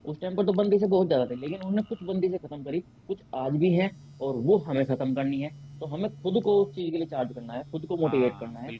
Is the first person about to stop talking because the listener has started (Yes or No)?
No